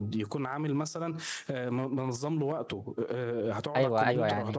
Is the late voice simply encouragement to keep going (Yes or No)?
No